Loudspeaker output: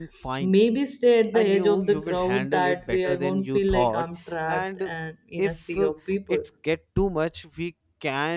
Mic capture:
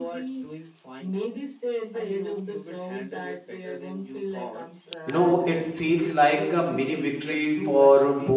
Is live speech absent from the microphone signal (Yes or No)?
No